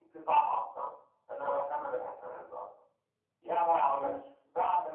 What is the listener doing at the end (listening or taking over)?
listening